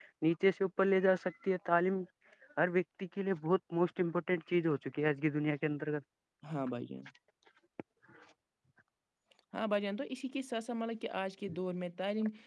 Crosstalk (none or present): none